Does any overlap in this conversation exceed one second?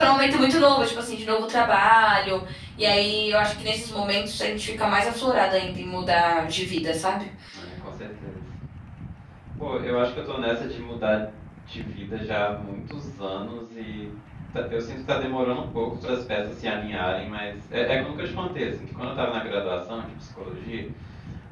No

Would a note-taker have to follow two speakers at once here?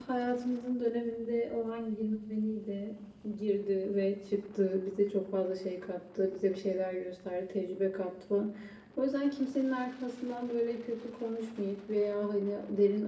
No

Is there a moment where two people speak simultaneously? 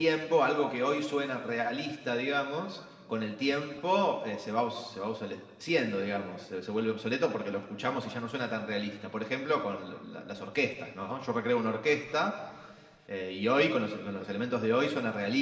No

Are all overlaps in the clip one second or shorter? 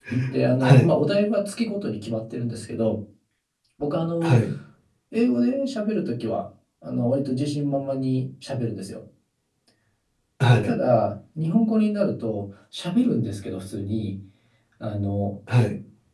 Yes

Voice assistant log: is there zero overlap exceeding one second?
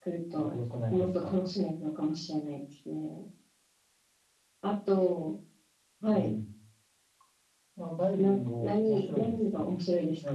No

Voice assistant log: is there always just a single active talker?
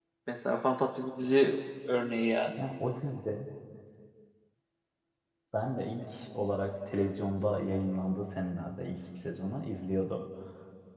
Yes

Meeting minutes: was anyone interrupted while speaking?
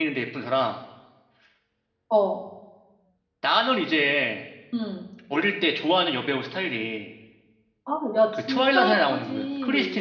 Yes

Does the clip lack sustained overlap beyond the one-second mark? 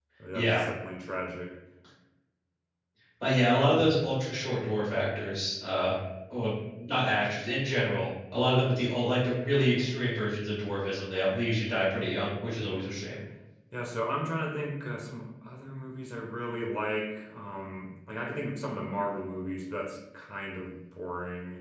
Yes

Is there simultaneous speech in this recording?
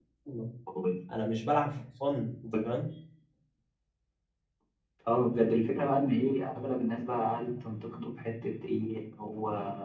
No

